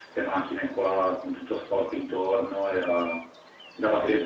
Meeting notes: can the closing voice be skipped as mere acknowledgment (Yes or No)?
No